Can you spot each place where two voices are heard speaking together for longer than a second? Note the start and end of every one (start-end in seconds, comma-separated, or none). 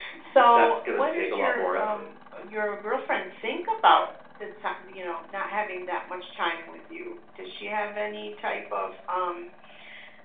0.5-2.1